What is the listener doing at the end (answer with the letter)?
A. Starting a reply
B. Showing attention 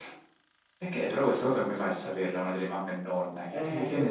A